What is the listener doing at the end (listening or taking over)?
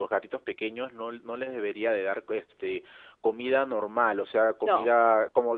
listening